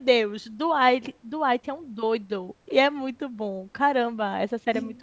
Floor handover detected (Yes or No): Yes